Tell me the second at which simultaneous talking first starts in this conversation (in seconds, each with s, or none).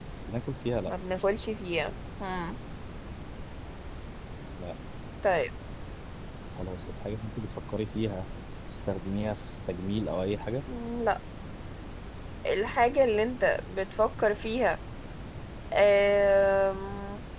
none